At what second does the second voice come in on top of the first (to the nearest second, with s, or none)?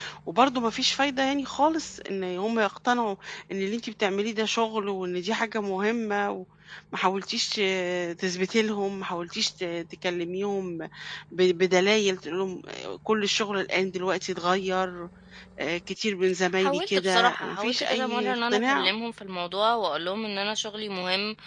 16 s